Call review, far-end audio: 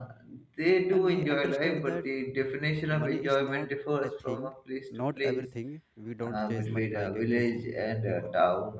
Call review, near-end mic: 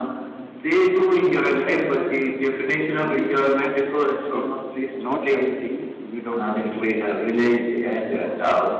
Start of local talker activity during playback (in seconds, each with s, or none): none